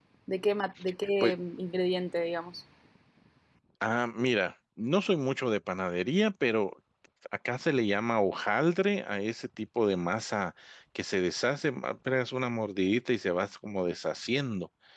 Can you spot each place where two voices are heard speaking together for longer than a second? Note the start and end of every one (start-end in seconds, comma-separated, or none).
none